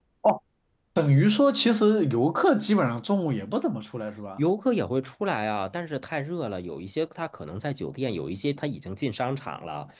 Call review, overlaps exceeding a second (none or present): none